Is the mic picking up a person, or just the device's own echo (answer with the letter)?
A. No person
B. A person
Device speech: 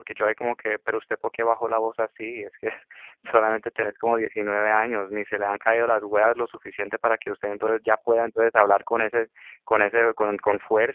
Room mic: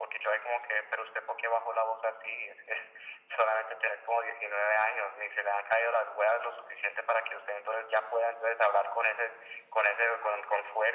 A